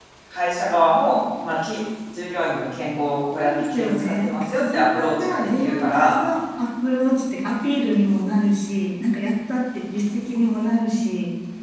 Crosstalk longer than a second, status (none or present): present